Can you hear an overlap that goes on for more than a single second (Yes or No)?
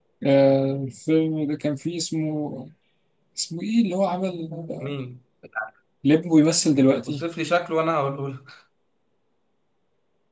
No